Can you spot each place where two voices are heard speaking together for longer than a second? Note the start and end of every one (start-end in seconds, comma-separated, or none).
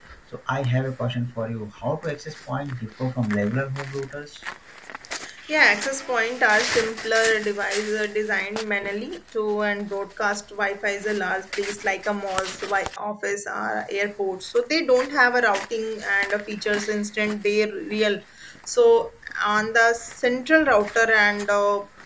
none